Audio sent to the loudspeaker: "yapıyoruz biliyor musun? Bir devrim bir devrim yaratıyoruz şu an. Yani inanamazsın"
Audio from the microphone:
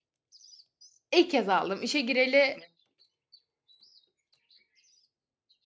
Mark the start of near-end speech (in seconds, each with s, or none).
1.2 s